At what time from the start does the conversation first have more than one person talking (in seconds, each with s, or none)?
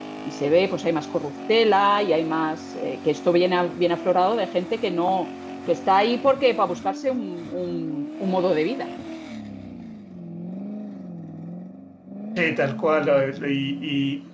none